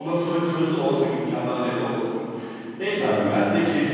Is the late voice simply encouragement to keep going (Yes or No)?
Yes